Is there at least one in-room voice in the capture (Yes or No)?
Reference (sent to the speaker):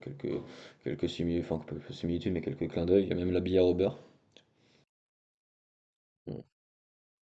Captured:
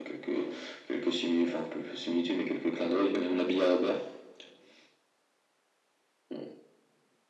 No